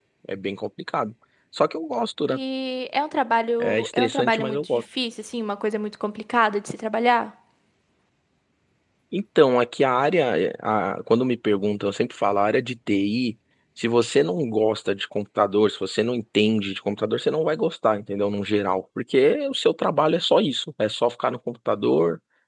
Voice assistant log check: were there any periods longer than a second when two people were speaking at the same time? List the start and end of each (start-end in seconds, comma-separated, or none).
3.6-4.8